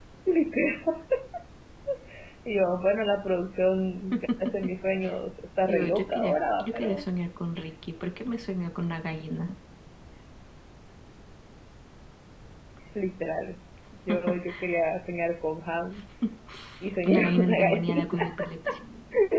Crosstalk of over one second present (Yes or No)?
Yes